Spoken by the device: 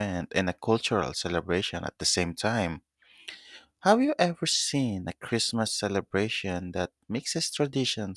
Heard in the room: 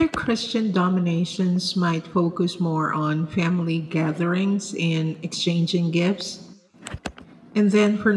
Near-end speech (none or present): present